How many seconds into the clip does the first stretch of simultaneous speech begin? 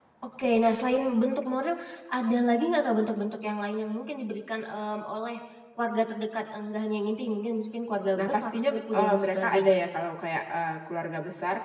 8 s

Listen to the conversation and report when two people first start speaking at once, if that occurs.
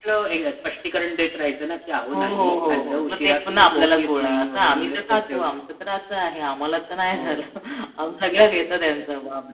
2 s

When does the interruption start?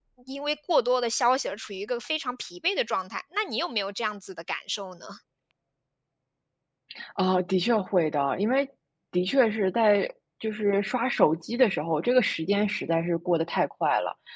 none

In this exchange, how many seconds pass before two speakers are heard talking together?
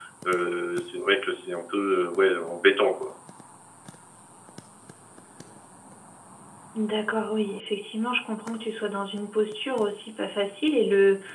none

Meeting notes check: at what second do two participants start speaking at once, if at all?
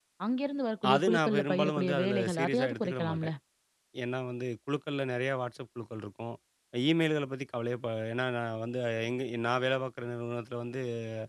1 s

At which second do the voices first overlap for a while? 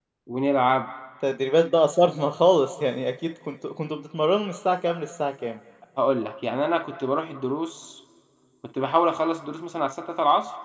none

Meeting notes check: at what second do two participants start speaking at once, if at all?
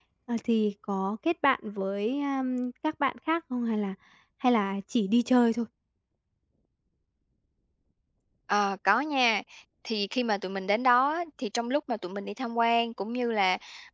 none

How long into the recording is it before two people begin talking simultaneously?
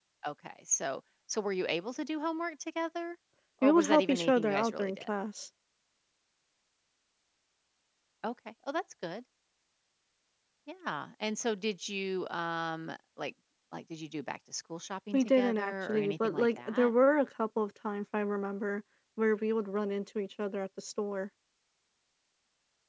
4 s

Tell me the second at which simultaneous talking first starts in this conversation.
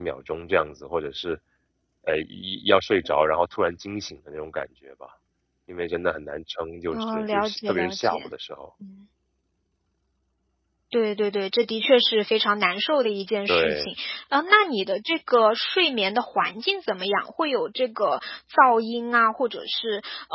7 s

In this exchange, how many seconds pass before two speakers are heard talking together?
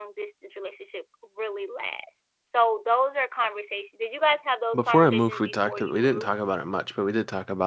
5 s

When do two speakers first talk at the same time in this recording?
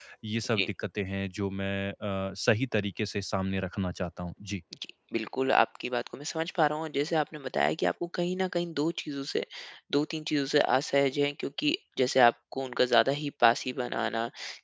none

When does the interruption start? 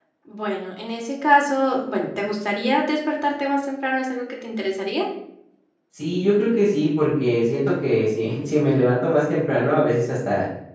none

